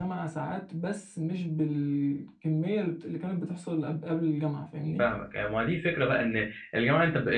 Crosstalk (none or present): none